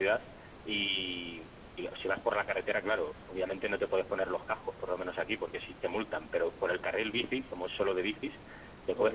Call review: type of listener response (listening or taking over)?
listening